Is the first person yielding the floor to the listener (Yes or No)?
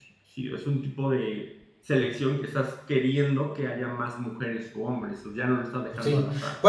Yes